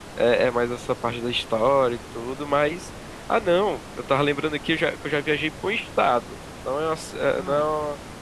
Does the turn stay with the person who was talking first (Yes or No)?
Yes